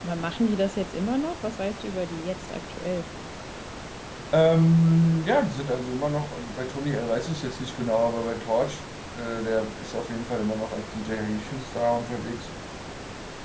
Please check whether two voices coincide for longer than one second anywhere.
No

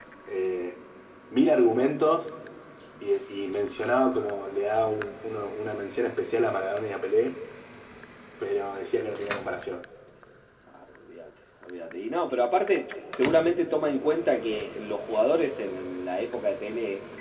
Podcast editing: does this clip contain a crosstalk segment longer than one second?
No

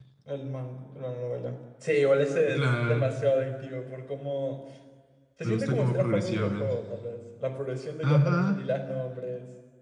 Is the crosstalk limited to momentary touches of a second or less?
No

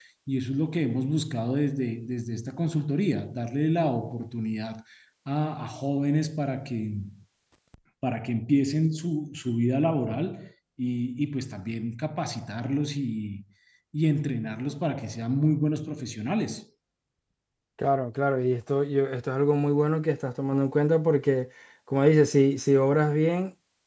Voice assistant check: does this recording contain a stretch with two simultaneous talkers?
No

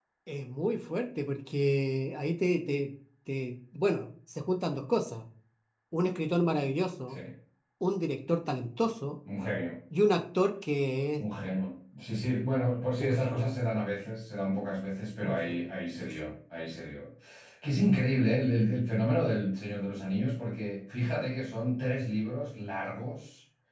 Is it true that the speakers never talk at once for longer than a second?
Yes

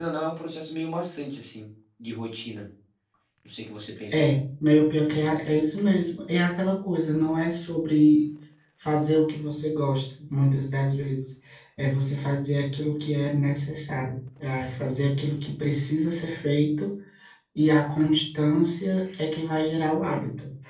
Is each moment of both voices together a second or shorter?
Yes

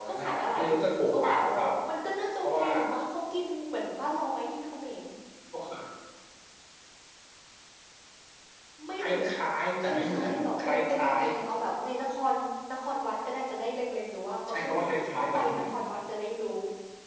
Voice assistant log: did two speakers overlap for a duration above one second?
Yes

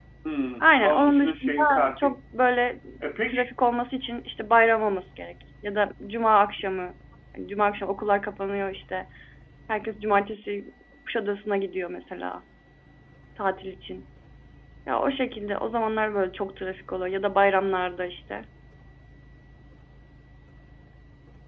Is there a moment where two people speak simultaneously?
Yes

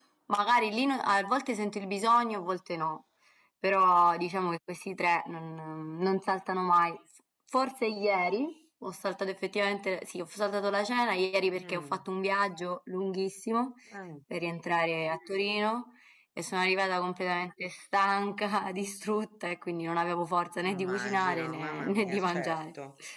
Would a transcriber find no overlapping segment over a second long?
No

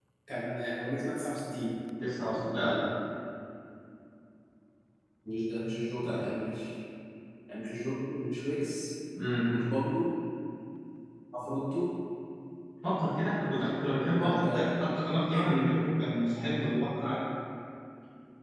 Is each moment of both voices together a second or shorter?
Yes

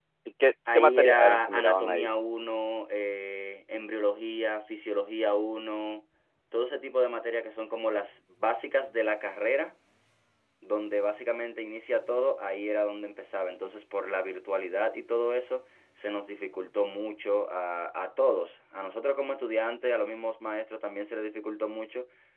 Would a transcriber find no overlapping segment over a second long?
No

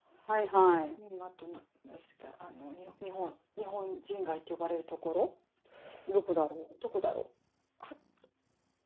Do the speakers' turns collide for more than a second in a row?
No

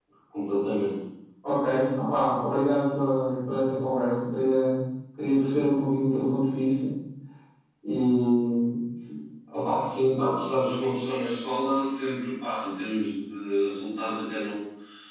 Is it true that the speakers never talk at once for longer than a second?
Yes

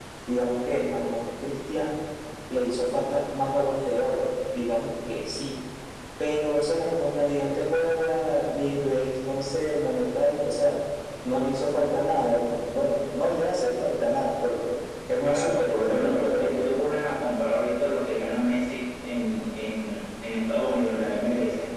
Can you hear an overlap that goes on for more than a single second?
Yes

